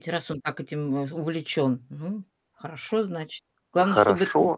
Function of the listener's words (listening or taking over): taking over